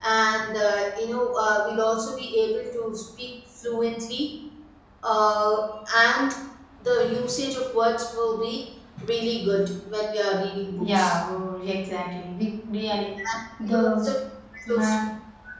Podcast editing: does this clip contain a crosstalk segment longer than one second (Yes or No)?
No